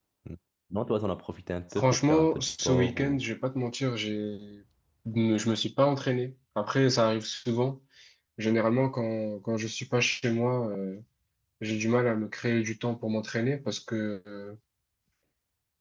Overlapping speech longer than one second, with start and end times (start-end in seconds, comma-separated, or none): 1.7-3.2